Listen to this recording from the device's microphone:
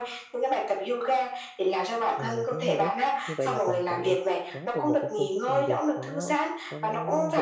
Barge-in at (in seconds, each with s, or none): 2.1 s